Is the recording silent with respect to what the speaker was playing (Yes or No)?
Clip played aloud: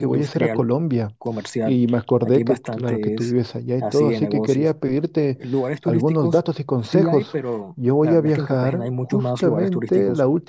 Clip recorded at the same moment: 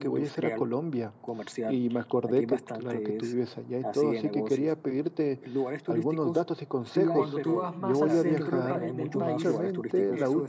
No